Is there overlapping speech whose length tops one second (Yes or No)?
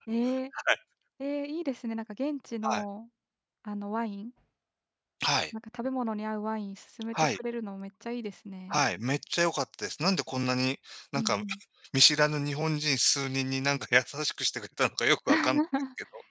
No